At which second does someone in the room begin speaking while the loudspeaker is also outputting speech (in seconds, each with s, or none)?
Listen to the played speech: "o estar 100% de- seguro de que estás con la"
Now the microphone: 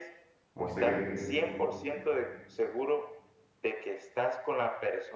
0.5 s